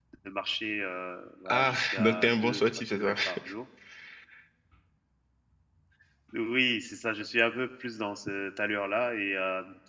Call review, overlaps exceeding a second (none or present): present